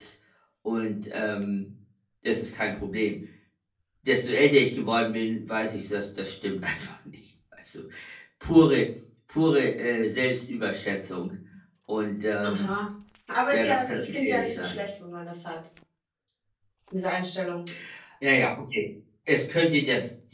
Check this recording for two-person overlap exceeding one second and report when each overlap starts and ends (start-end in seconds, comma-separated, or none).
13.5-14.8